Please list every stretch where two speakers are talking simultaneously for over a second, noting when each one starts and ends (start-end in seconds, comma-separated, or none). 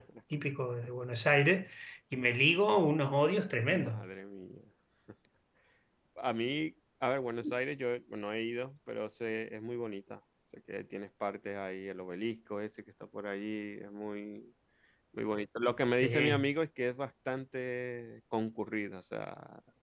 none